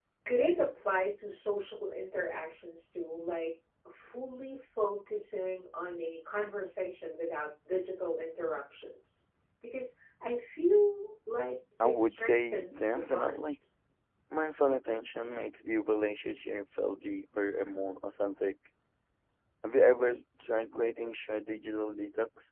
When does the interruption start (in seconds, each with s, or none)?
11.8 s